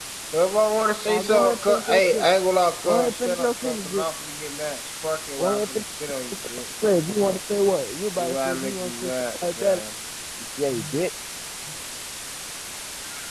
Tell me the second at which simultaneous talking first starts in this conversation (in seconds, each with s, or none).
1.1 s